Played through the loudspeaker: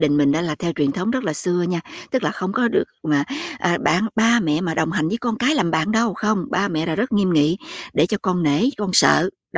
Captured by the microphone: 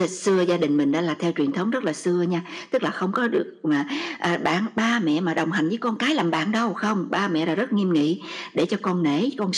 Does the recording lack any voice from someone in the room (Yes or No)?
Yes